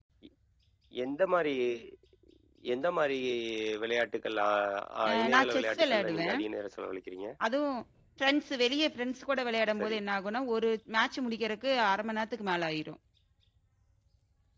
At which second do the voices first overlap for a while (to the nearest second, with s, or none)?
5 s